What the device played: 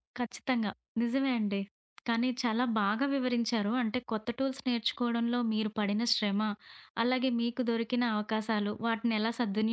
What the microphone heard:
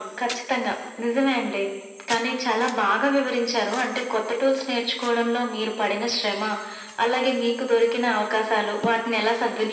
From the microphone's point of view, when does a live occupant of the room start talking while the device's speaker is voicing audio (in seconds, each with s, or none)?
none